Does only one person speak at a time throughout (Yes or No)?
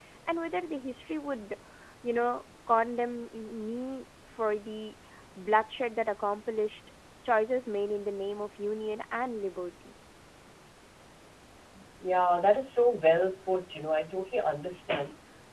Yes